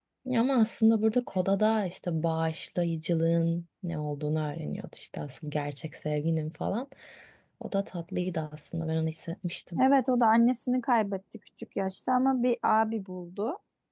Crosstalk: none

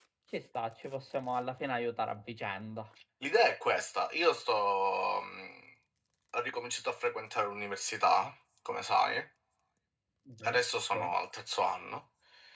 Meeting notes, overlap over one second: none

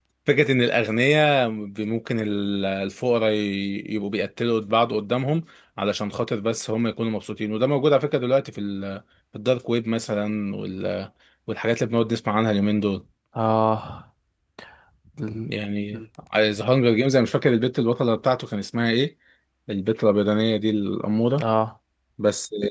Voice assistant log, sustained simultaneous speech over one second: none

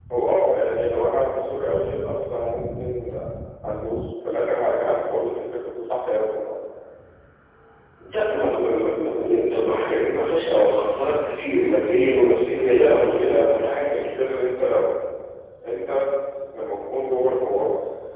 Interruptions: present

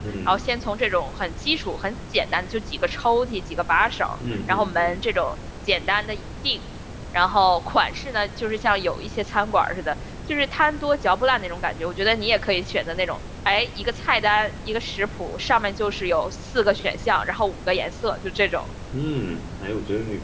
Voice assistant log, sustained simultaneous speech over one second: none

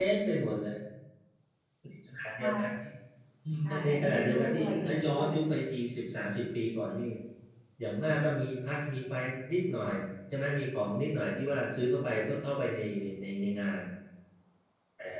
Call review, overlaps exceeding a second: present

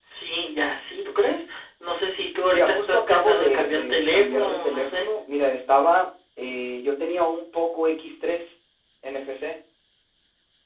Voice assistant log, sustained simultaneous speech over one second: present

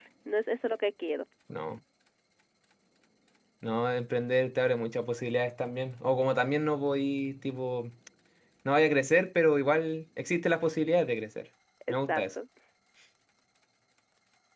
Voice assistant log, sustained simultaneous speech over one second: none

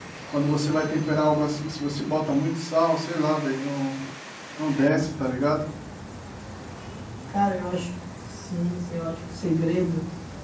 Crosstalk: none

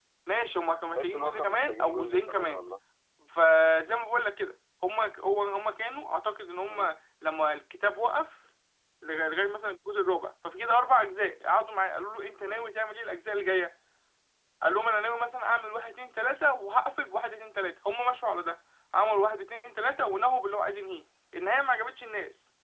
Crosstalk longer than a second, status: present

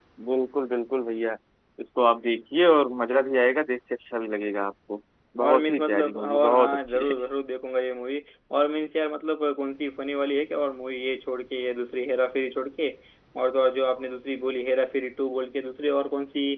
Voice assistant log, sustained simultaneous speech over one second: present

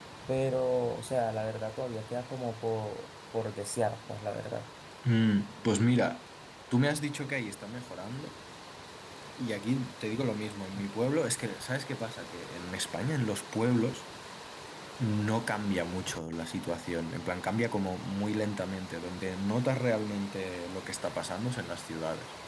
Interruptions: none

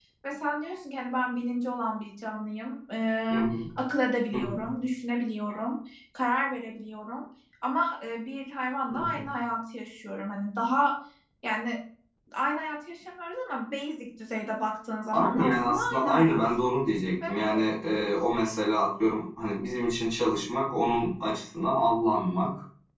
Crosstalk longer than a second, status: present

